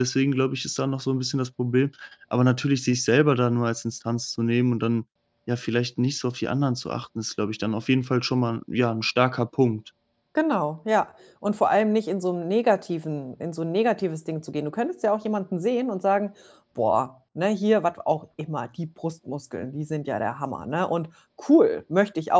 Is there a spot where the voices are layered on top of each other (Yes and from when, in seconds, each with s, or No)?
No